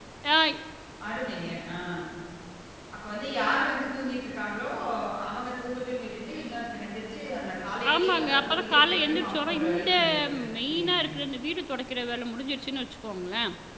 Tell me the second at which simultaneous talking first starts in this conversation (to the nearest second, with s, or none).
8 s